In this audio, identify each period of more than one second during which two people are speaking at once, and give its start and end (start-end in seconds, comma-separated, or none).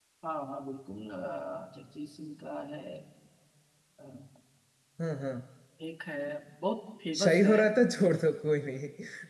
none